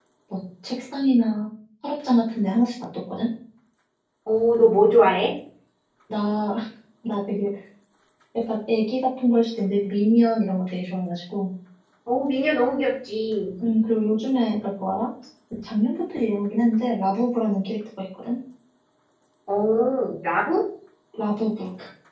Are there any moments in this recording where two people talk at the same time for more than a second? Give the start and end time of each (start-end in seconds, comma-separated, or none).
none